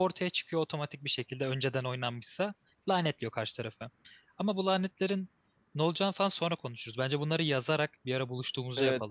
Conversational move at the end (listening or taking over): taking over